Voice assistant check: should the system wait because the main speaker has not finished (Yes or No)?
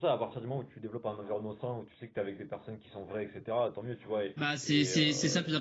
No